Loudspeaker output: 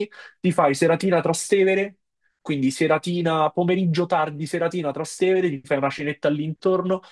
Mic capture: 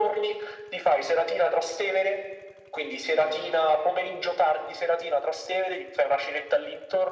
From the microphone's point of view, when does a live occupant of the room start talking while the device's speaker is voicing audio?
none

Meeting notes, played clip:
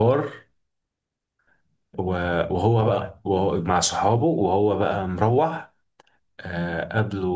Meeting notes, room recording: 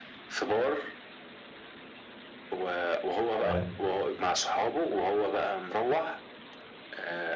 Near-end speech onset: 3.4 s

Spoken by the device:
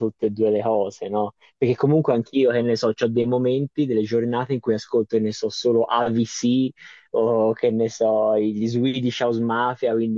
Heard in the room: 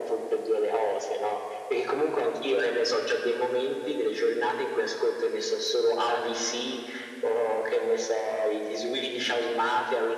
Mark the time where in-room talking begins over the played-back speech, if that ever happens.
none

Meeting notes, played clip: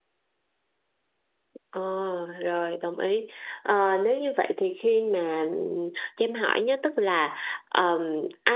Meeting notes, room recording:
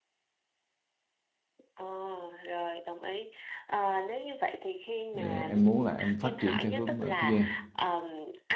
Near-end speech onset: 5.1 s

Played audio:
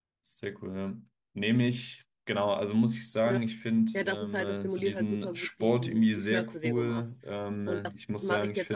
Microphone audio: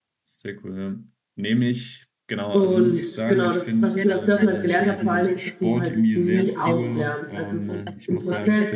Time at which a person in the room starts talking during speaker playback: 2.5 s

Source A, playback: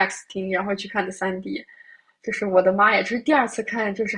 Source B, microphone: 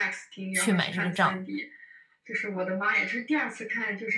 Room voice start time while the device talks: 0.5 s

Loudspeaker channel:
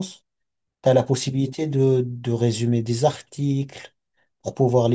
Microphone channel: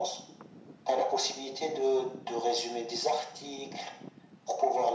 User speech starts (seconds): none

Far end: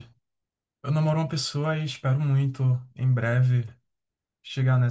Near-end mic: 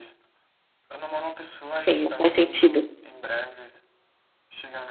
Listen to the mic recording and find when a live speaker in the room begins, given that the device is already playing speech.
1.7 s

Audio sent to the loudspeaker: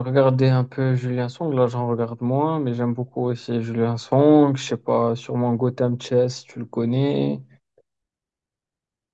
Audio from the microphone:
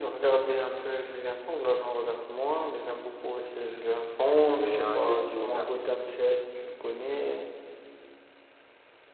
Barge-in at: 4.4 s

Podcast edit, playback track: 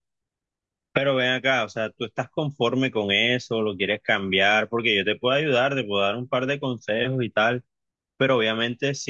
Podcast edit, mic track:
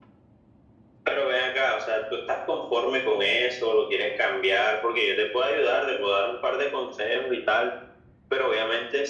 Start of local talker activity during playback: none

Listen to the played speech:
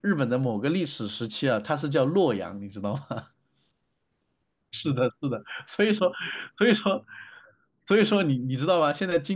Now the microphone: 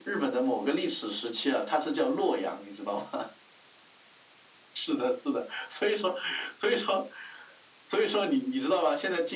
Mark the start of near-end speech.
none

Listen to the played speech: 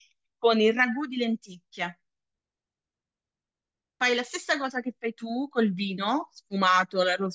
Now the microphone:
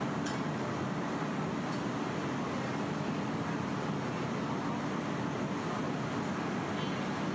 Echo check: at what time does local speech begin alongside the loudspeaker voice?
none

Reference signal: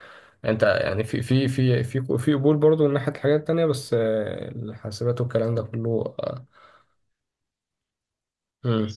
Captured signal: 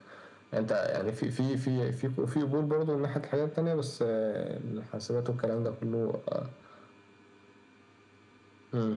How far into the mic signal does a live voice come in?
none

